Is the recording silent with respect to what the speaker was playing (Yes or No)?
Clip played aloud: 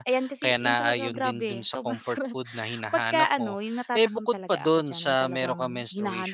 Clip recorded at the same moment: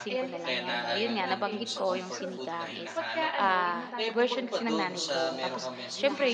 No